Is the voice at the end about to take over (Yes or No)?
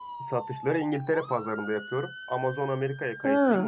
No